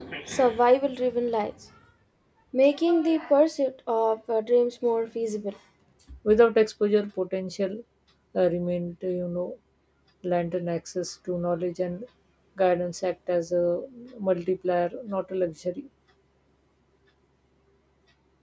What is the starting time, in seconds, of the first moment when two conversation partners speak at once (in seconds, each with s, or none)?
none